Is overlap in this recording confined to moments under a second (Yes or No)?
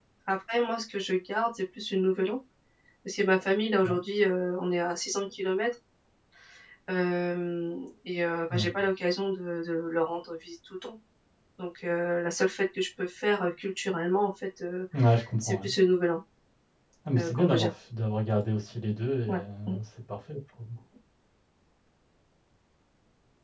Yes